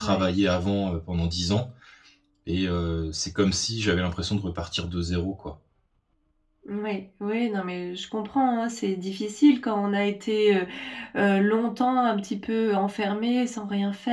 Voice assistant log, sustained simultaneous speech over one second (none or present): none